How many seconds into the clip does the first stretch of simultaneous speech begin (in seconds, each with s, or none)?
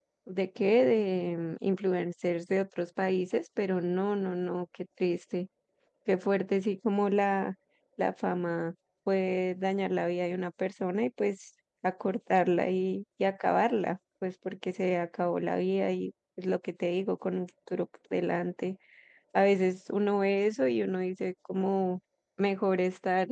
none